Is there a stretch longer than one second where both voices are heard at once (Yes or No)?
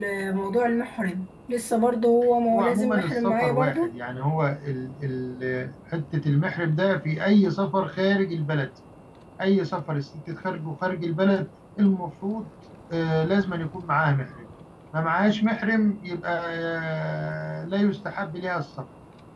Yes